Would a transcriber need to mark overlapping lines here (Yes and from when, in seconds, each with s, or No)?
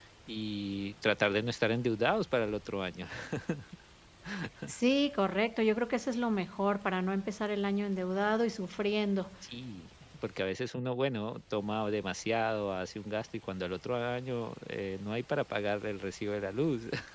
No